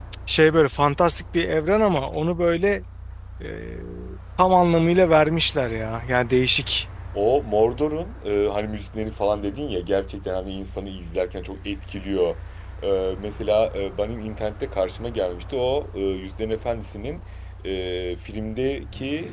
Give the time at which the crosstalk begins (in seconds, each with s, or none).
none